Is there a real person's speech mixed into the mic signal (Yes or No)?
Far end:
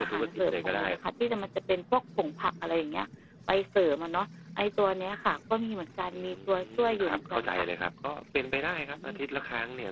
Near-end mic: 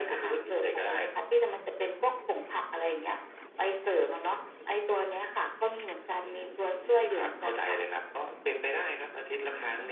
No